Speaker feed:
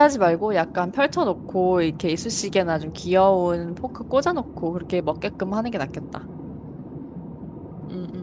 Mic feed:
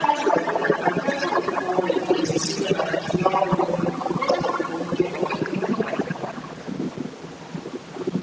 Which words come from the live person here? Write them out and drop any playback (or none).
none